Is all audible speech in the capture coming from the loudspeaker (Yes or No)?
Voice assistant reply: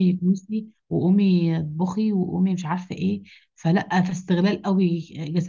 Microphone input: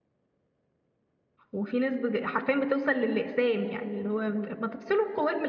No